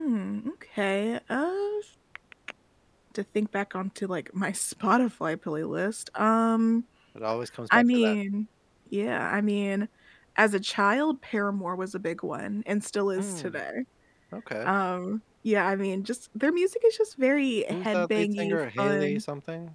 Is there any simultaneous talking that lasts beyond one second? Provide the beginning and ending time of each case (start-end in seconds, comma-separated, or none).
17.7-19.2